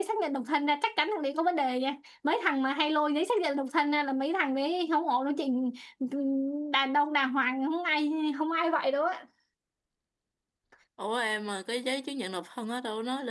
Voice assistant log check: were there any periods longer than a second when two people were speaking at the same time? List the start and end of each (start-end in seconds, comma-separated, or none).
none